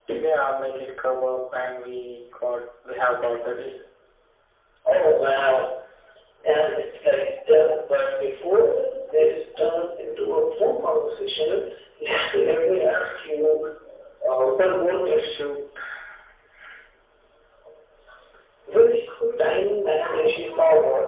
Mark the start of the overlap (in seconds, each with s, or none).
none